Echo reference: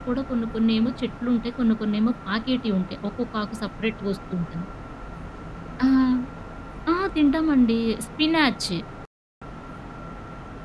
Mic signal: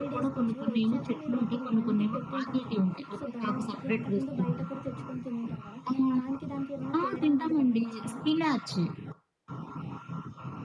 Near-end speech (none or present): present